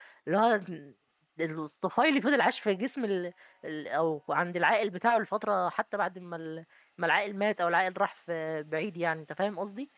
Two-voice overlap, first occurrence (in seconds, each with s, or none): none